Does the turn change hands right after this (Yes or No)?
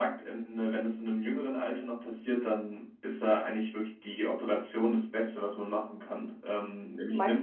Yes